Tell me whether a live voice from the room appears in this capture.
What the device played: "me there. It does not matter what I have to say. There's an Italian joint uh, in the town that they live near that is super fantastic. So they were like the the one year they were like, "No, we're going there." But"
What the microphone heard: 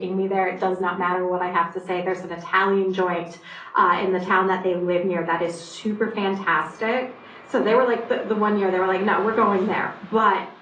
No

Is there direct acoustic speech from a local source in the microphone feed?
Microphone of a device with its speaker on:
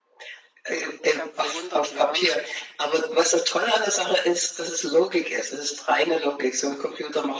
Yes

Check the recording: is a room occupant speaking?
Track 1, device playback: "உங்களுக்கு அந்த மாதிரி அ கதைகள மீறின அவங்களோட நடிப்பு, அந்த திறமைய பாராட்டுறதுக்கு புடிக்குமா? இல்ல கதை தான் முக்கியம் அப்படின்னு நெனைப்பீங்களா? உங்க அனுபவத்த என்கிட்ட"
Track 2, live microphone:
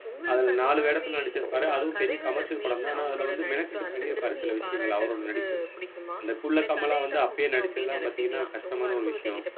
Yes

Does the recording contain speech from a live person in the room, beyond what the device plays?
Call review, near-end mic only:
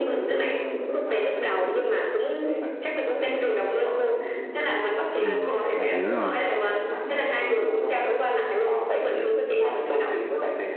Yes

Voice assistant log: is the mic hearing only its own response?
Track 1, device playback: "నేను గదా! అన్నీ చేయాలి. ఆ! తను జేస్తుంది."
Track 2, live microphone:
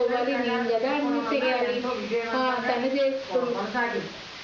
No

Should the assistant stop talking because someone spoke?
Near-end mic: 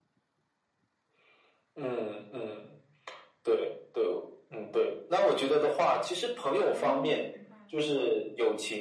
Yes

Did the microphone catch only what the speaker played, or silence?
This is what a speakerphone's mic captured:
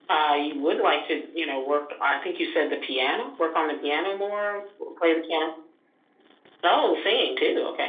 Yes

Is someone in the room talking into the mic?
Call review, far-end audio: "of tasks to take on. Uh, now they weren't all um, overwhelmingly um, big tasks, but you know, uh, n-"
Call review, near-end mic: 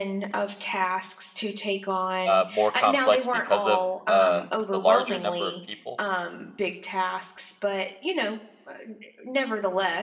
Yes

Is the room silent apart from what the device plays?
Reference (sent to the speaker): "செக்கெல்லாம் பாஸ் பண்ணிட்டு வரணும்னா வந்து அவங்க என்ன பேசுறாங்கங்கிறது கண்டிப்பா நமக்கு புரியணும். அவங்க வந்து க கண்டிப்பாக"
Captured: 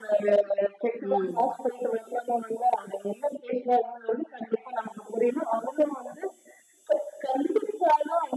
No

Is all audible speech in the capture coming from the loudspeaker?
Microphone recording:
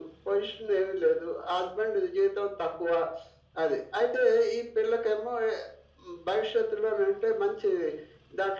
Yes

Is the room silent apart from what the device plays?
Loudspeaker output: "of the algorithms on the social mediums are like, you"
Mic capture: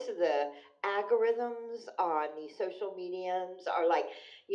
Yes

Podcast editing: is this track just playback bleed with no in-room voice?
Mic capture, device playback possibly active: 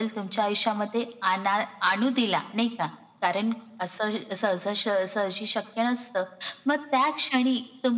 Yes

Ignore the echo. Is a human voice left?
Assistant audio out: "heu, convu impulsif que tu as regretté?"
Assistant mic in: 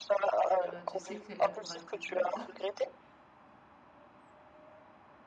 Yes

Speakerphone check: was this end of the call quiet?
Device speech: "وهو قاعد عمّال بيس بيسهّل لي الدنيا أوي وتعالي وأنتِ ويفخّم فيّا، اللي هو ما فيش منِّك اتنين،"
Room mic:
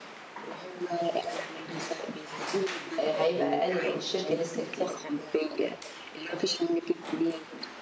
No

